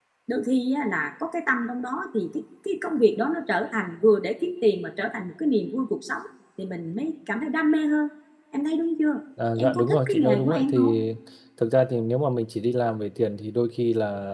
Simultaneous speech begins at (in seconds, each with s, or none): 9.6 s